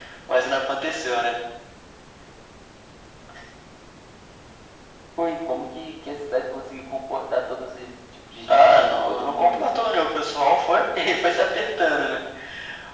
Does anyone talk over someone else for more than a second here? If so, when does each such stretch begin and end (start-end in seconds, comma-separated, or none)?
8.5-9.7